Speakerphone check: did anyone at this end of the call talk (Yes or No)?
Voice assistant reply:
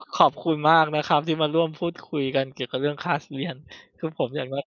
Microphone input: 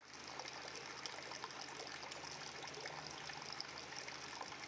No